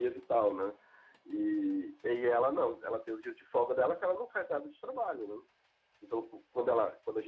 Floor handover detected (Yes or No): No